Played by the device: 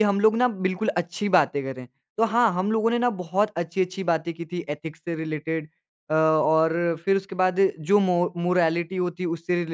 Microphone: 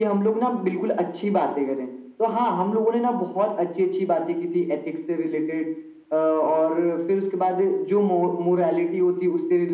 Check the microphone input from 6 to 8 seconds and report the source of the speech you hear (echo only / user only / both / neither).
echo only